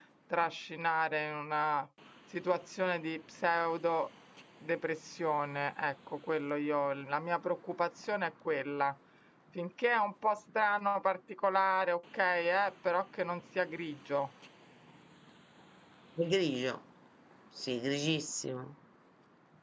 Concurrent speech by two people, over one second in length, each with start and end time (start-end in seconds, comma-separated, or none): none